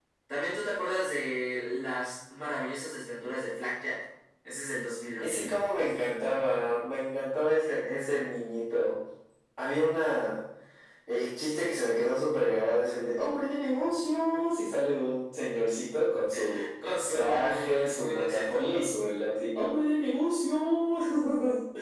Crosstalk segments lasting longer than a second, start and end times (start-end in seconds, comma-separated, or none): 17.1-18.8